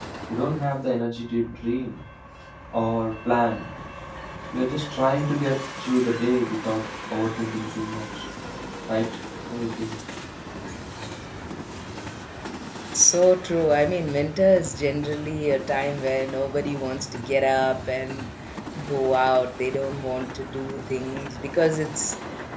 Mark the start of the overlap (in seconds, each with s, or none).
none